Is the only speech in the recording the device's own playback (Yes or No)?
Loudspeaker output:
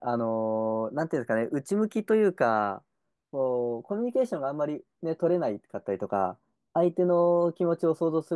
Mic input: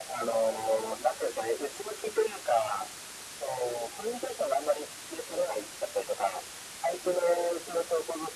Yes